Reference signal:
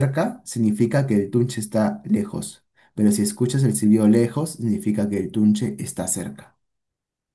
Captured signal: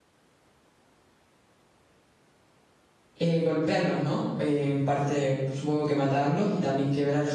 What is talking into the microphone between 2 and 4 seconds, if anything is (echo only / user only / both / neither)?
user only